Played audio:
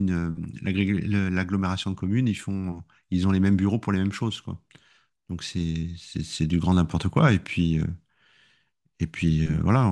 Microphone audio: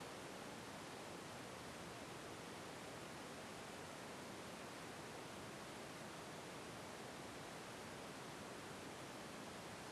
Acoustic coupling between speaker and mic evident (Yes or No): No